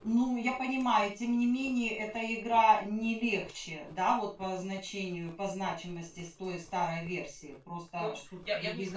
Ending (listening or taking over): taking over